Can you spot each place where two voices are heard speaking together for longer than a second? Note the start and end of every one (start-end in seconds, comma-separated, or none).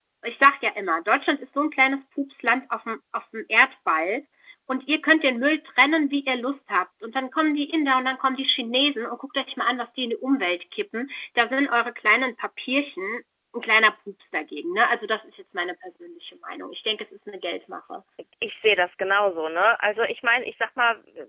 none